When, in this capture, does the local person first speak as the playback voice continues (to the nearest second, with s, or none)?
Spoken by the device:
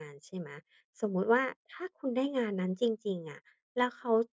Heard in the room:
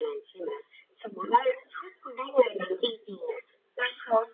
none